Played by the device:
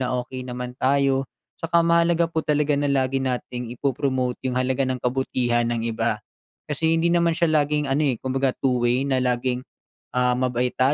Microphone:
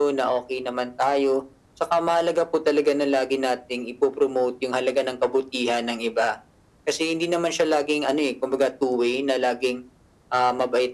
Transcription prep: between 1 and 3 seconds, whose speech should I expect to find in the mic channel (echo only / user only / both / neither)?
echo only